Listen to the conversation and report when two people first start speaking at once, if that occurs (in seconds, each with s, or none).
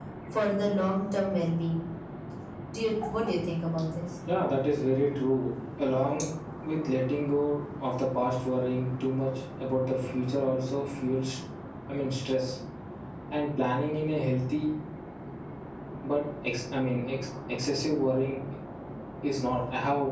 none